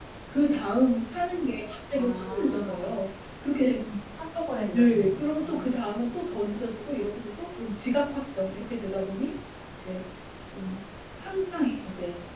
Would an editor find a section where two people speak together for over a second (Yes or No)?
Yes